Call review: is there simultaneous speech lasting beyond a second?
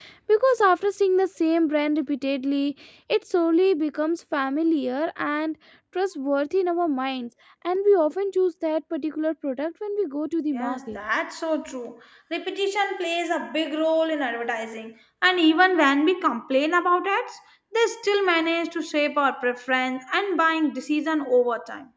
No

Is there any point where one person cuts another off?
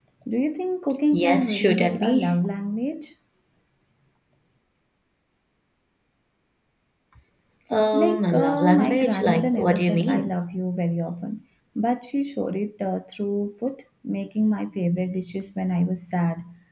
Yes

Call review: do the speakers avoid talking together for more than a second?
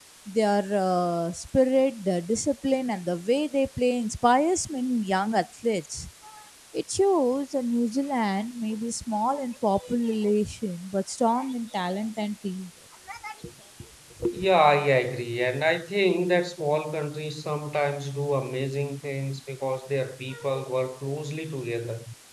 Yes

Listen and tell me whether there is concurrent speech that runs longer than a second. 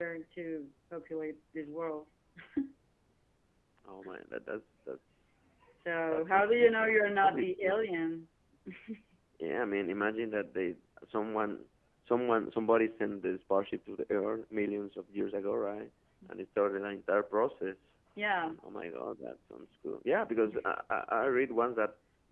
Yes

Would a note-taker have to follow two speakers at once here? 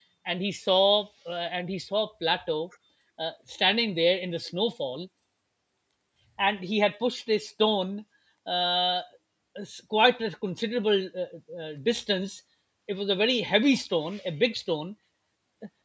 No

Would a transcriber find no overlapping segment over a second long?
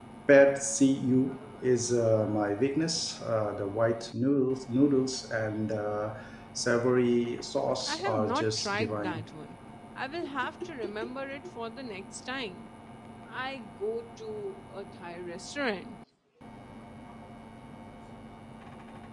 No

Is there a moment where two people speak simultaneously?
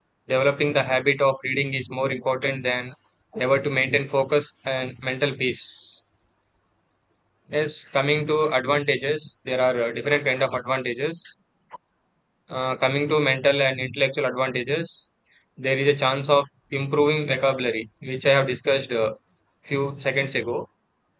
No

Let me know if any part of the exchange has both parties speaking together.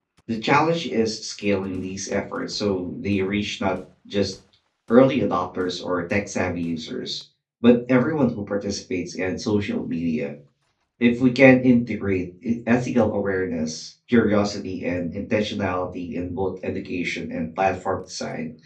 No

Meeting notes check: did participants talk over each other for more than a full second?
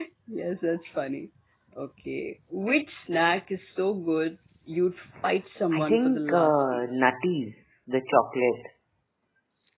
Yes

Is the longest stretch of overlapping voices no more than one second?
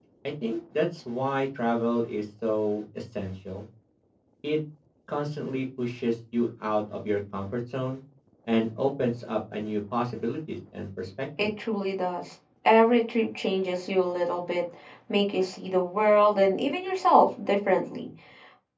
Yes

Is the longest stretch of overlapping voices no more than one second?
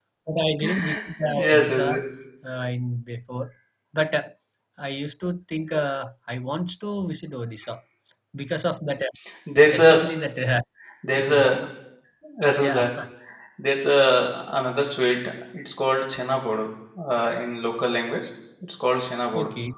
No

